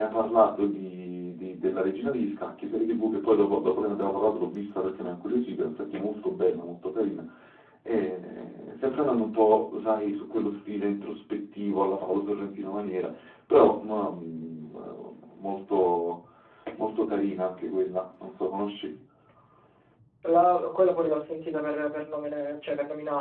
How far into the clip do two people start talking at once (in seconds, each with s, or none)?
none